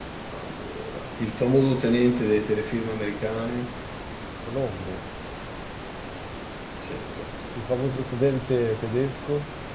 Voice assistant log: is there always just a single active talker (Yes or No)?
Yes